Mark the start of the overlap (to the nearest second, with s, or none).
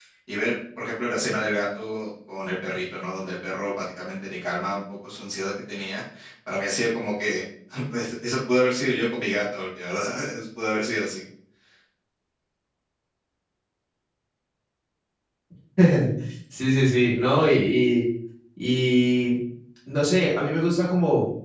none